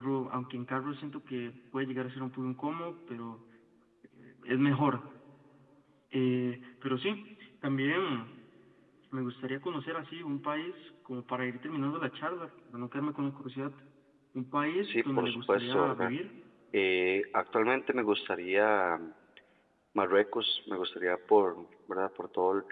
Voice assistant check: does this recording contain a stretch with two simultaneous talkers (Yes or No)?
Yes